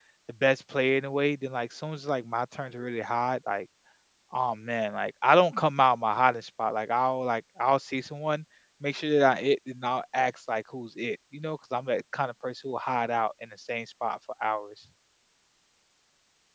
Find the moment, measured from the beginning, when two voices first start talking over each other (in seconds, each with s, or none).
none